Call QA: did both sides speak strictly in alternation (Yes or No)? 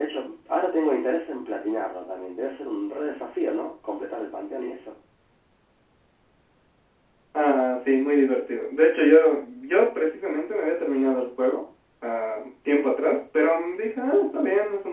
Yes